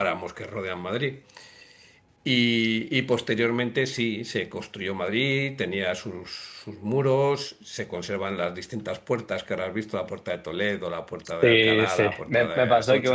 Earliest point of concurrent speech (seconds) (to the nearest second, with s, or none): 11 s